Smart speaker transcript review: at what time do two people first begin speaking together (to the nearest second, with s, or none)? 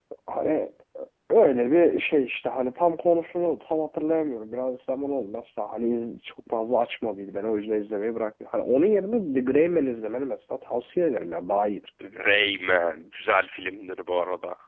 none